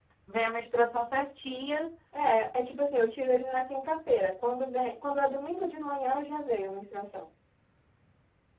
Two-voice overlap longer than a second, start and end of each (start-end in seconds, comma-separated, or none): none